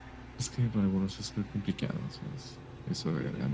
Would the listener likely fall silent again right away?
No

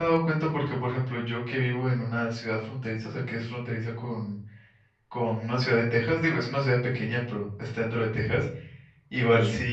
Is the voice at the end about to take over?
No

